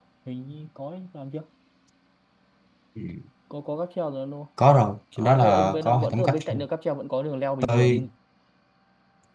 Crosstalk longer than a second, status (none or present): present